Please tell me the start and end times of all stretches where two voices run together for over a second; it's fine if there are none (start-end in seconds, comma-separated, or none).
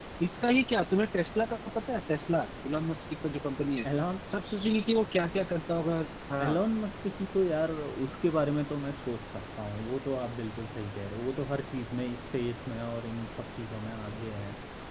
none